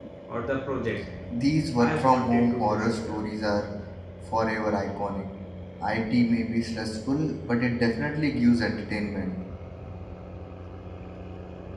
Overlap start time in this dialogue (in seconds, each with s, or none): 1.8 s